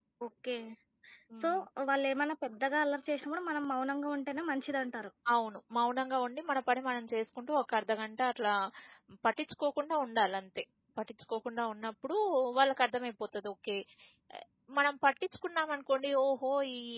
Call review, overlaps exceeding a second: none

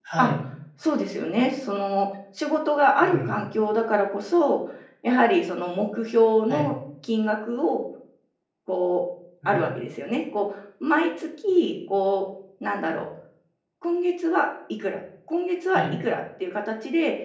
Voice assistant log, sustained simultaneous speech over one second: none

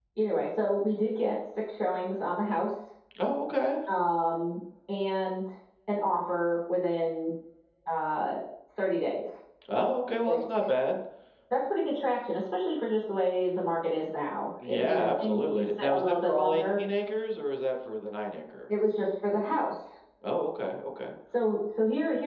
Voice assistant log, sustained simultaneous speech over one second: present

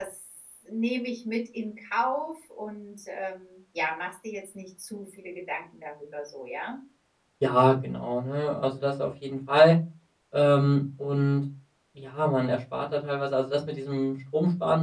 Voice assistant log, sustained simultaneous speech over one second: none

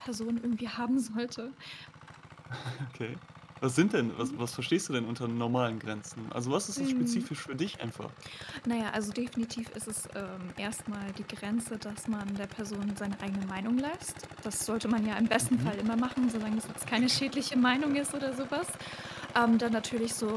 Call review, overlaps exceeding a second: none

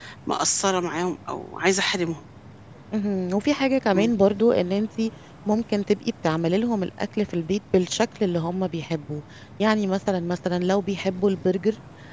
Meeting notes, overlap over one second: none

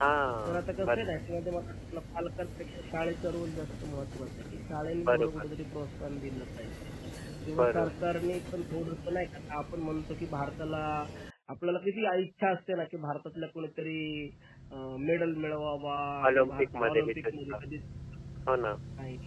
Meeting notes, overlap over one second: present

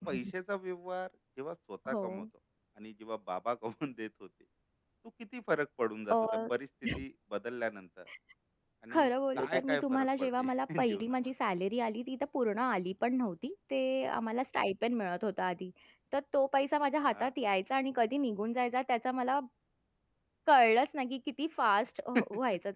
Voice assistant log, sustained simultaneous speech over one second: present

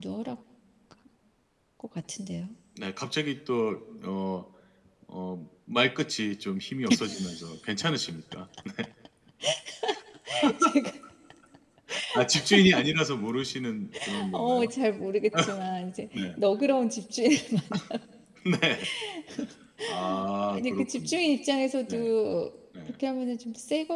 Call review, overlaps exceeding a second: present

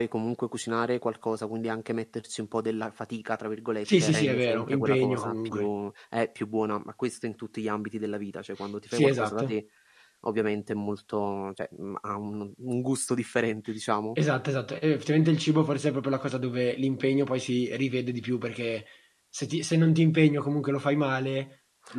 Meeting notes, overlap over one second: present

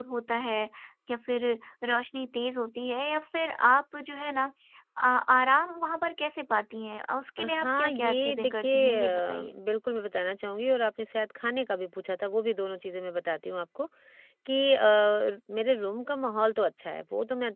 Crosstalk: present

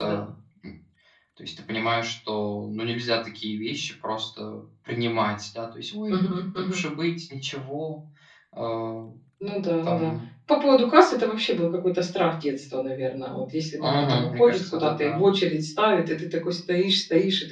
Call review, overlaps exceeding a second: present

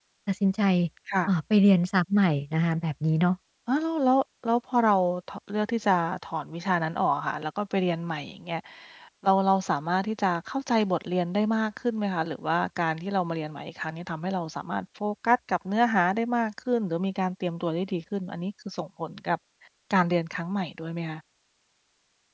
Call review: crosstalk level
none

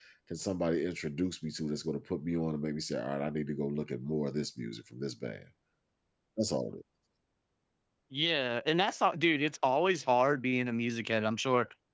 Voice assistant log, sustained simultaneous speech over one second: none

